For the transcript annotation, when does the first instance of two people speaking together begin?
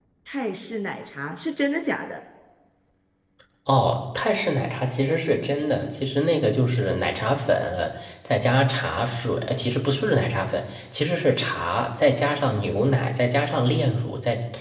none

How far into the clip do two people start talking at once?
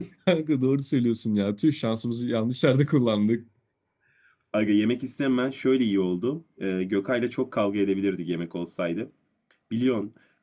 none

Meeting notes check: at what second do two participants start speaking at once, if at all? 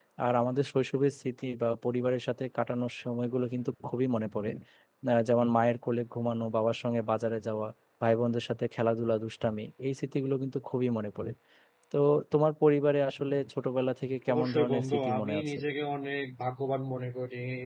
14.3 s

